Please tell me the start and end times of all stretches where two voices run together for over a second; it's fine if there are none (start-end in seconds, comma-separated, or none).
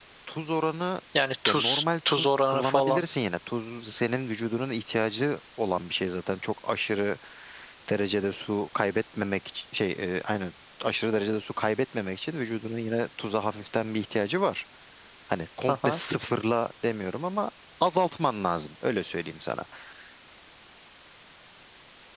1.5-3.0